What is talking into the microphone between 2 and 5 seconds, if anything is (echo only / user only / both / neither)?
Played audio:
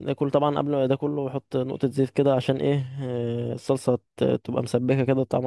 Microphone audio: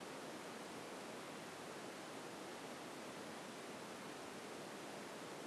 neither